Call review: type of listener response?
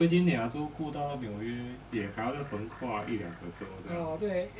taking over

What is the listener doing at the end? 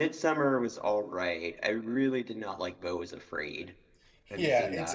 taking over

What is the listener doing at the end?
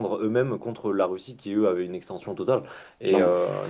listening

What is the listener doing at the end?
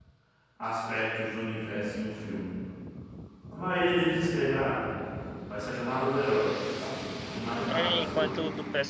taking over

